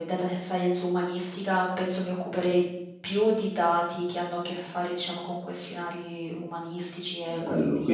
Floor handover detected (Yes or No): Yes